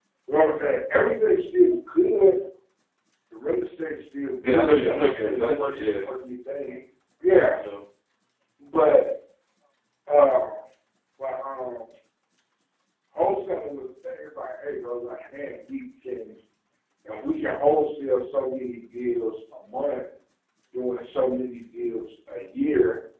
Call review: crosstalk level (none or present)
present